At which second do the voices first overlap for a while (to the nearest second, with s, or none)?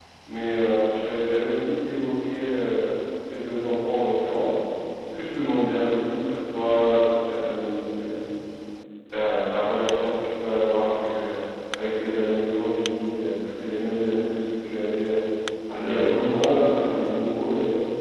16 s